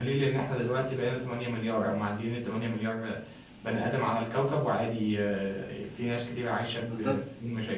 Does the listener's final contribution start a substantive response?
Yes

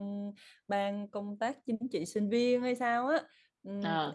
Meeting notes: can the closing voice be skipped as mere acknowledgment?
Yes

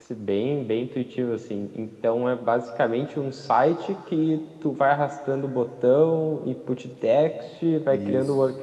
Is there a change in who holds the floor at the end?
No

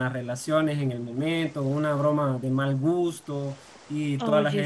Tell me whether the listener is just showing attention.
Yes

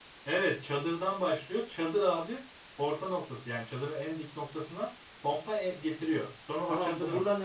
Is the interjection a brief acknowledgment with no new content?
No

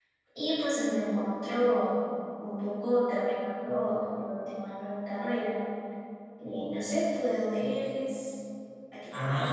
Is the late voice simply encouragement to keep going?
No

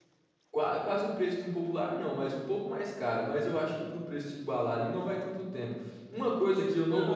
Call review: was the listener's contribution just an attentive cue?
No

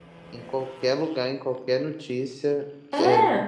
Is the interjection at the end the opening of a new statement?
No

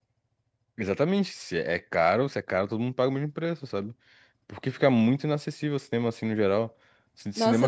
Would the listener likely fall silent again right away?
No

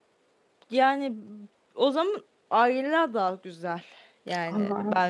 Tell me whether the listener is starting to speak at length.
Yes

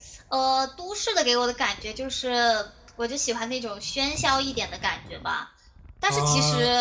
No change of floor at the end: No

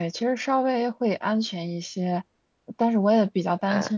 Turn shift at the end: No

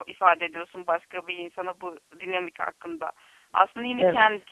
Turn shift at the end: No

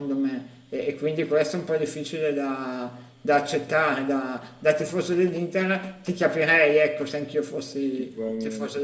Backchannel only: No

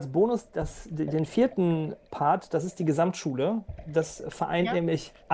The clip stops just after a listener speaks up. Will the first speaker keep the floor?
Yes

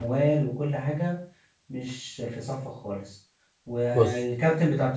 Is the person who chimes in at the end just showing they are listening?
Yes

